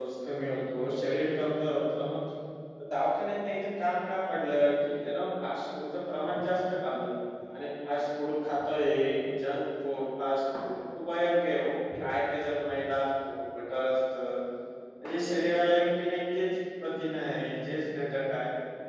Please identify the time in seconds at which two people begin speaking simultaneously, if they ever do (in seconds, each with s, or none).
none